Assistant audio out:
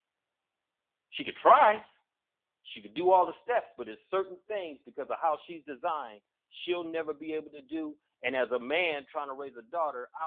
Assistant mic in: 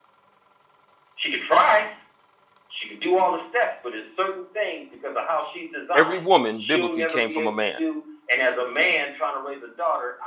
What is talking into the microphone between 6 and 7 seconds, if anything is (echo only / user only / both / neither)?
both